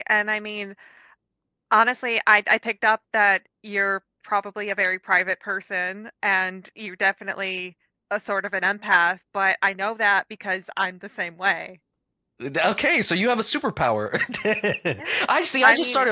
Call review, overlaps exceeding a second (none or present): none